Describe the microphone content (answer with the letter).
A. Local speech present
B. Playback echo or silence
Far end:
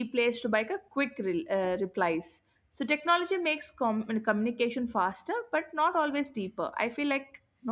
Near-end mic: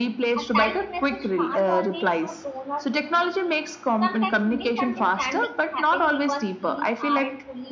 A